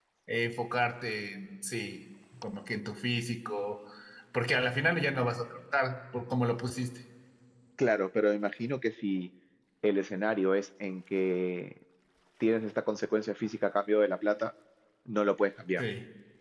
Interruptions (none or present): none